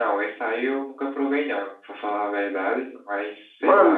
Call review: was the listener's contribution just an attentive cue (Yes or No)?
No